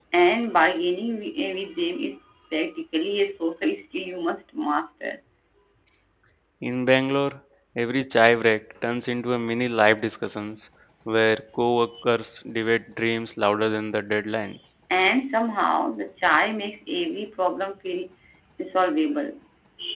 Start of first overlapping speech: none

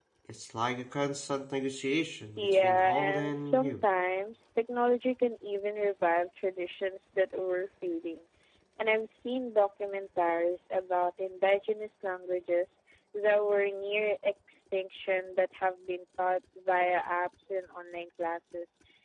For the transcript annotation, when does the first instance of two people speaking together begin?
2.4 s

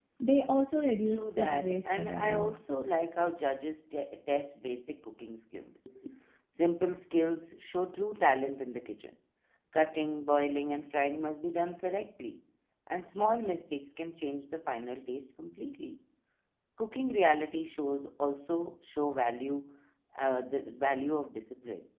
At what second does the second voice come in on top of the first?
1.1 s

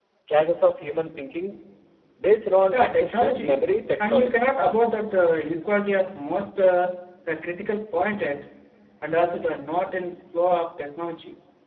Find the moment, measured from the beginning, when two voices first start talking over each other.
2.7 s

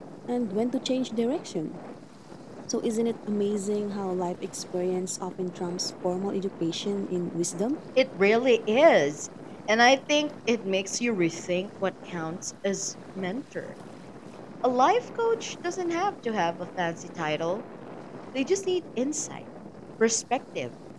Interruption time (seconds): none

